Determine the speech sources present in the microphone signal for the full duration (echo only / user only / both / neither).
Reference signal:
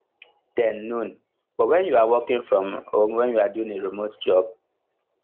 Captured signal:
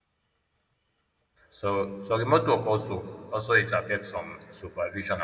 user only